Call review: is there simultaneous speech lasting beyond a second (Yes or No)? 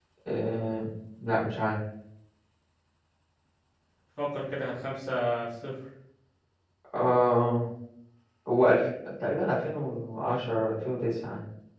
No